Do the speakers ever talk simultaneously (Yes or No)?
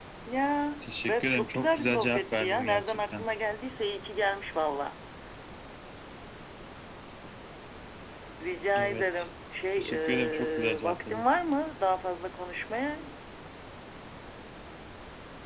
Yes